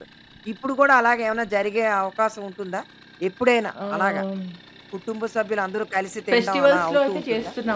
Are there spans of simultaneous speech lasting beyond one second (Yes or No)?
Yes